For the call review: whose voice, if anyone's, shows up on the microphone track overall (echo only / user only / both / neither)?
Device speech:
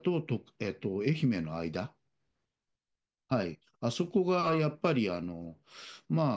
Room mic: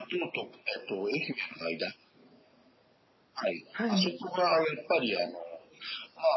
both